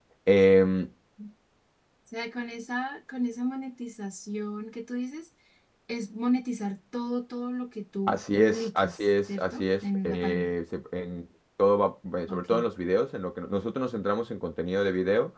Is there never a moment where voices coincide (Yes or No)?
No